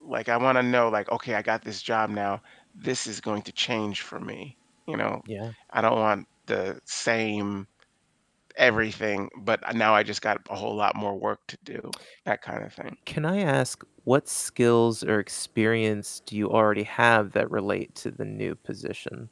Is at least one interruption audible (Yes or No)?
No